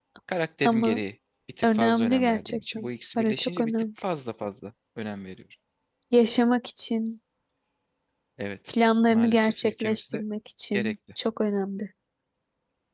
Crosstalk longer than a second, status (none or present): present